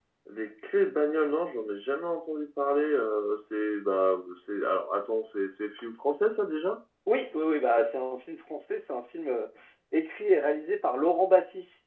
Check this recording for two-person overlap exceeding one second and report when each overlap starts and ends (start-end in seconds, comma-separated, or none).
none